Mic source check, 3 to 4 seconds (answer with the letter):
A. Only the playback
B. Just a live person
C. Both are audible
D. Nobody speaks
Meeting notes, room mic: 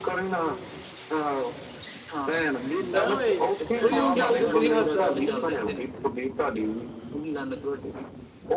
C